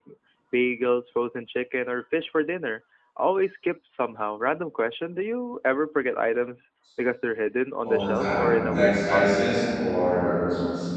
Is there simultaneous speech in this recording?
Yes, from 7.8 s

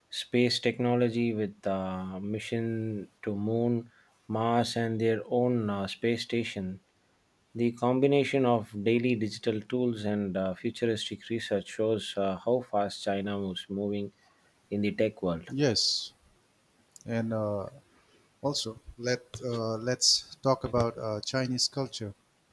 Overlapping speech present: No

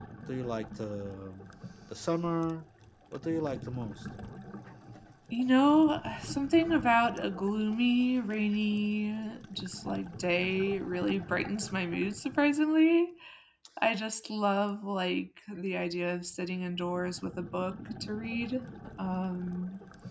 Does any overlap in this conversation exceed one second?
No

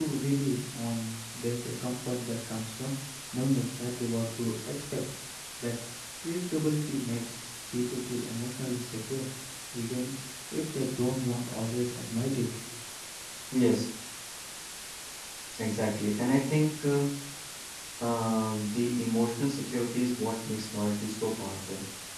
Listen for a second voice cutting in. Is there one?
No

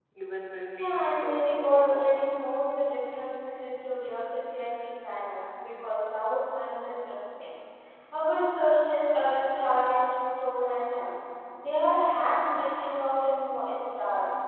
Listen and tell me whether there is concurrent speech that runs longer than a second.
Yes, from 0.8 s

